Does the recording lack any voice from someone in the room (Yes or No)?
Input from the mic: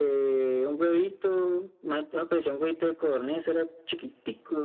Yes